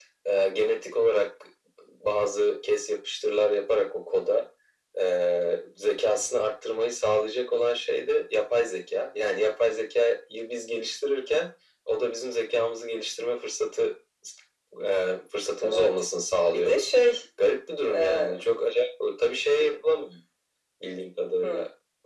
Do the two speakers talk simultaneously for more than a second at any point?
No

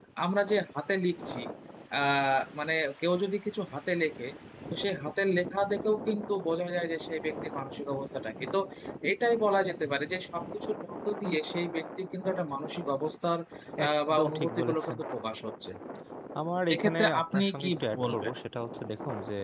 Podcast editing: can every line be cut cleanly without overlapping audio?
No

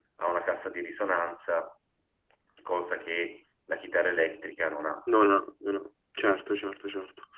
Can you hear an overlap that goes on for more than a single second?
No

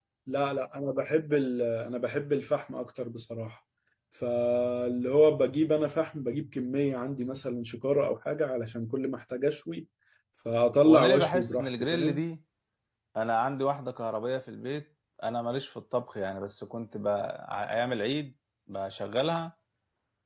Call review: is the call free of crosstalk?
No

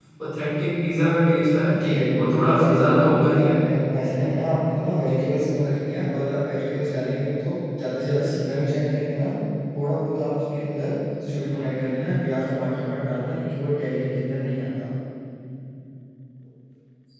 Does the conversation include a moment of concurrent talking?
Yes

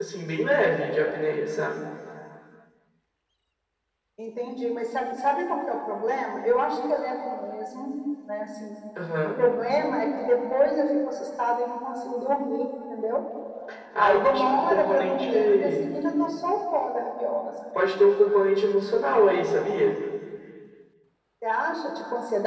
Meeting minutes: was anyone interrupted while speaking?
Yes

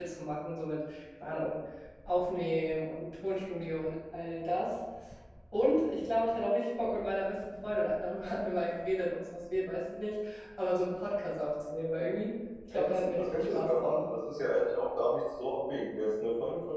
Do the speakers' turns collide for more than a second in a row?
Yes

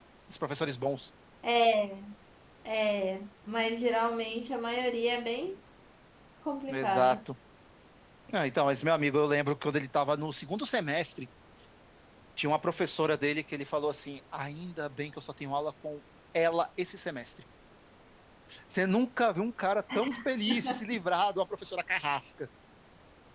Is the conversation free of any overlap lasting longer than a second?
Yes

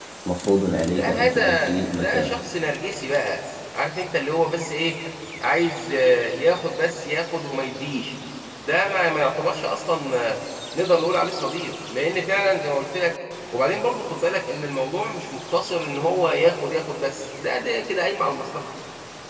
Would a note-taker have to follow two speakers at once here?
Yes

